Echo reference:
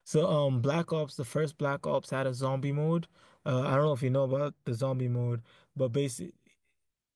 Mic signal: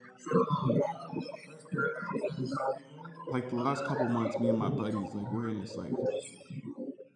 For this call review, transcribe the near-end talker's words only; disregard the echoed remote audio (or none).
like the last couple months, me and my buddies, like we're in this like